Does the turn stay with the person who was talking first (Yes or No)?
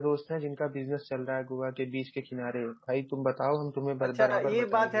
No